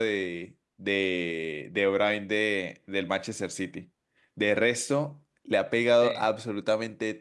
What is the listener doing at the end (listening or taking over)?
listening